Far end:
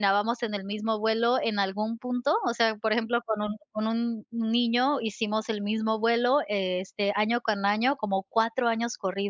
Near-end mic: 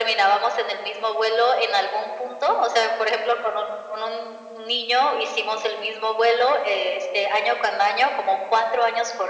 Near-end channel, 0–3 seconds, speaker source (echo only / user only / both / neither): echo only